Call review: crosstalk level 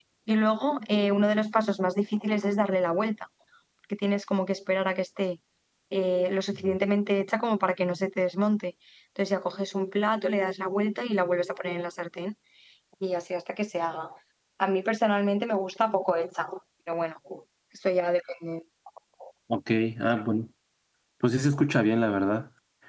none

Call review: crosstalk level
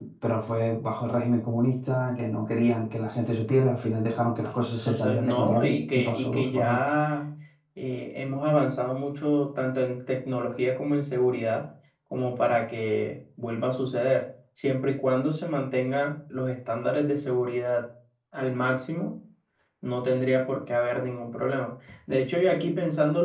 present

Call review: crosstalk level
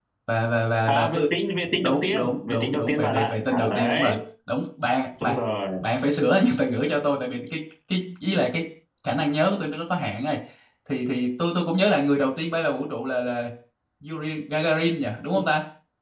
present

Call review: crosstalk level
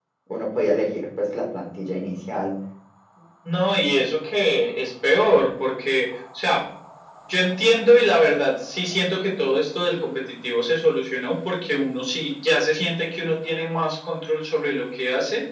none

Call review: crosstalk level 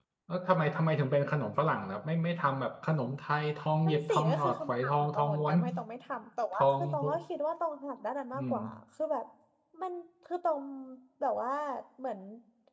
present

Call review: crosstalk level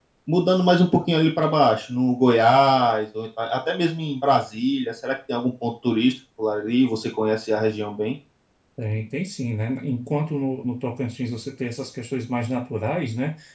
none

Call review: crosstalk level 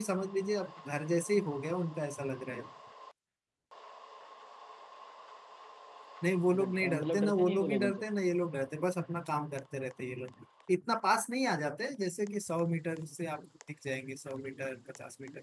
present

